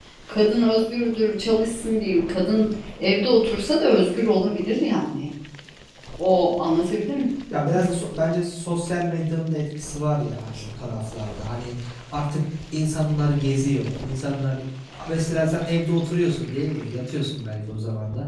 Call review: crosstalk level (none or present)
none